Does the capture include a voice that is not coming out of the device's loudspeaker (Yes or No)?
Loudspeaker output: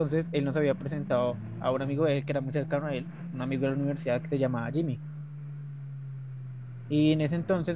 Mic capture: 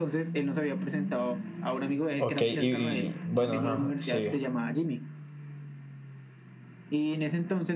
Yes